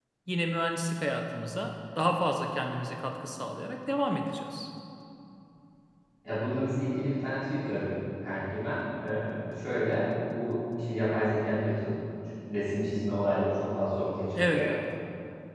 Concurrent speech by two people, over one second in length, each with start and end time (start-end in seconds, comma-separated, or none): none